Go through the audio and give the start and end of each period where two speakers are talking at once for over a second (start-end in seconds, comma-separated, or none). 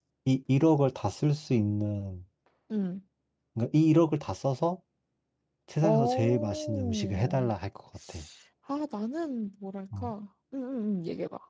5.8-7.5